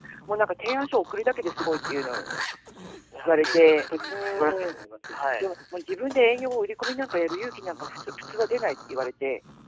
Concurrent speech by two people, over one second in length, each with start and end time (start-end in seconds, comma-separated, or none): 3.2-4.7